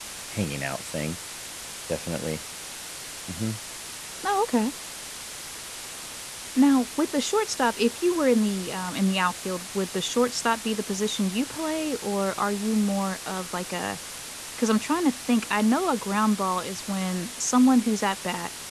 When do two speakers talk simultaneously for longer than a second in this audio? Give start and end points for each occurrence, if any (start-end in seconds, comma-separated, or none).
none